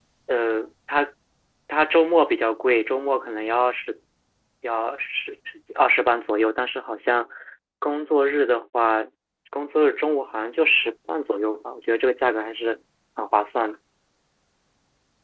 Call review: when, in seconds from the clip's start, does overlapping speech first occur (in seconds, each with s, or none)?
none